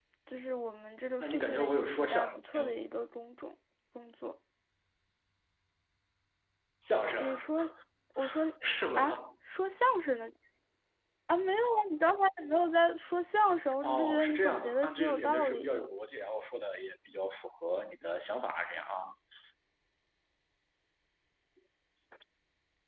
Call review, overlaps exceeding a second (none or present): present